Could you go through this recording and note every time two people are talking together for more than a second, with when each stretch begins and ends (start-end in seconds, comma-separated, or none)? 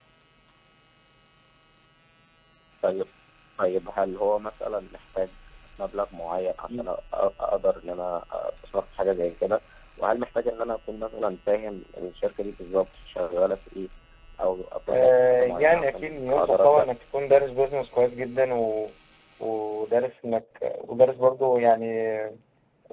14.9-16.9